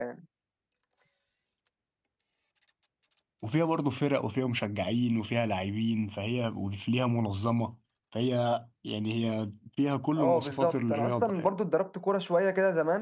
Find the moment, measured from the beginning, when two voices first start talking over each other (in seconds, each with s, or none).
10.2 s